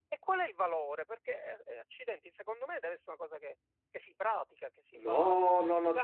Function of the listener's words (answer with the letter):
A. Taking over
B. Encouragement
A